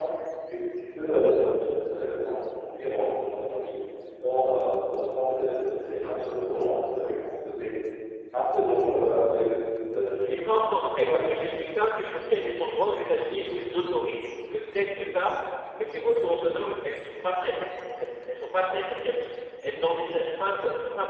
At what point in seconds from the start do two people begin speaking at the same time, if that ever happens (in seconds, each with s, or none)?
10.1 s